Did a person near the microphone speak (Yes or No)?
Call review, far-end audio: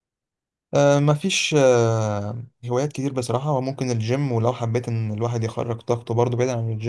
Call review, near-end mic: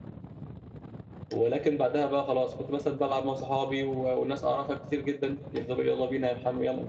Yes